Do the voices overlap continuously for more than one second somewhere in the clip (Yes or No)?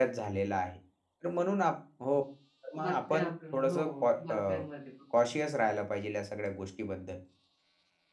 Yes